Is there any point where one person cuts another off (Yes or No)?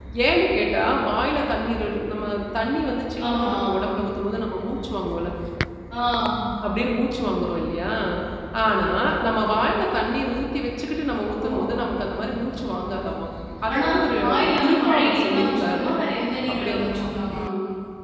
Yes